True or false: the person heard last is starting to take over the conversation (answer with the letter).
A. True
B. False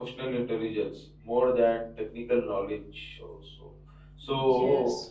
B